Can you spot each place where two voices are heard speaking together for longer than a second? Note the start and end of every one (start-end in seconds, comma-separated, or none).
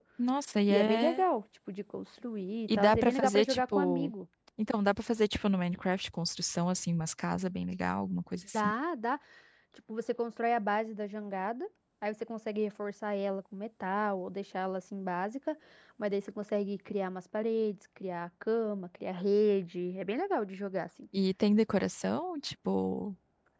2.7-4.1